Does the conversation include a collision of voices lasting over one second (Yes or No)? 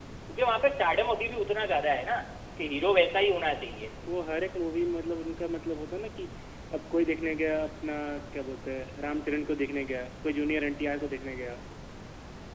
No